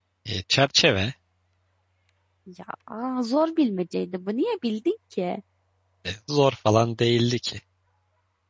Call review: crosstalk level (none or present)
none